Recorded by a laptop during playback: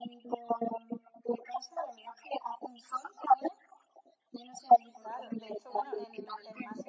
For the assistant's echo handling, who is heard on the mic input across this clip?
both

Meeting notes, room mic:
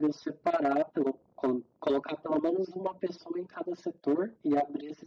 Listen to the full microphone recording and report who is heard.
echo only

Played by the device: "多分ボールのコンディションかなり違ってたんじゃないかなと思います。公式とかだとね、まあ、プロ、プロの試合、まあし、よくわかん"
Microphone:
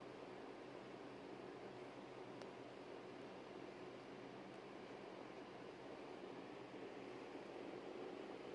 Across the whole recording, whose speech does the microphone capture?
neither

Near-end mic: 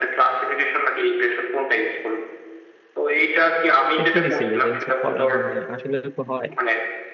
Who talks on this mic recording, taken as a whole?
both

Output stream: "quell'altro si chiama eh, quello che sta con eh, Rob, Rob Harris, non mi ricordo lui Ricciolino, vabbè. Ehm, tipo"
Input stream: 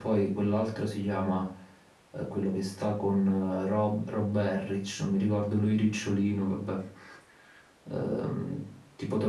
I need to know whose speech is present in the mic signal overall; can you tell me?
echo only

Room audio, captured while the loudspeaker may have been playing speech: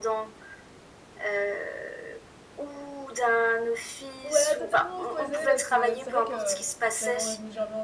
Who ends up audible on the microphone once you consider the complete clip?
both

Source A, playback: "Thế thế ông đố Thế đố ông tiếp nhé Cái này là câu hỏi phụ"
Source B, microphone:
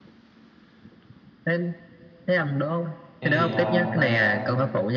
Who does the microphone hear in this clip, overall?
both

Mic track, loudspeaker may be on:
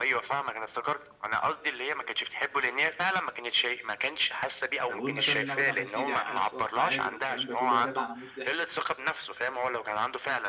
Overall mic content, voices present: both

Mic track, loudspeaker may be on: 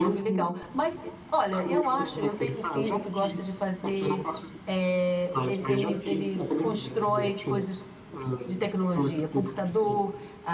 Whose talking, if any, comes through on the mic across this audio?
both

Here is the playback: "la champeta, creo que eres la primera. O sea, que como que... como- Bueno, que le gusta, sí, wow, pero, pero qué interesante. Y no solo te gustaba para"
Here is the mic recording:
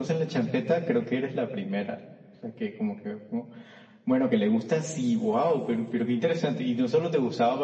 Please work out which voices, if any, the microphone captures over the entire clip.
echo only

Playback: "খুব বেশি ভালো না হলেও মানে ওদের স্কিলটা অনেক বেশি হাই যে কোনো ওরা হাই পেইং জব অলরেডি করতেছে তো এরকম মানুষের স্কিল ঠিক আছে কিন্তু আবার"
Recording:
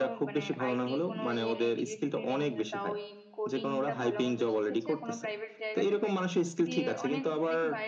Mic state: both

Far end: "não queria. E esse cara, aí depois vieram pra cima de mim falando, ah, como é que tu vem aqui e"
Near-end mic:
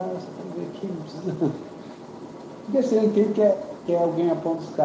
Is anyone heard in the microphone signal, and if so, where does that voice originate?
user only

